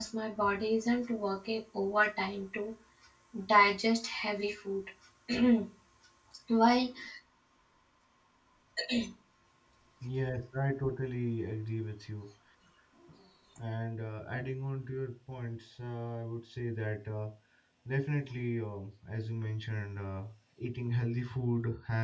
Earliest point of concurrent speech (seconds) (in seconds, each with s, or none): none